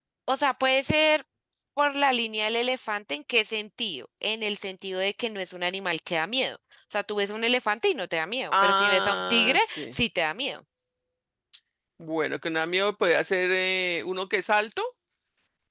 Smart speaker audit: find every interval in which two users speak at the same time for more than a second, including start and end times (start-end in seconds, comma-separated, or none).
8.5-9.9